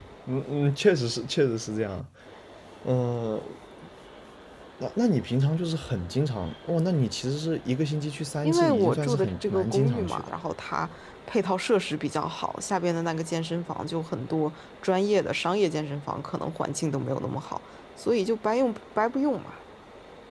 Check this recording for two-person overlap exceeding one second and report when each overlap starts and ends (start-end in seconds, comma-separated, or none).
8.4-10.3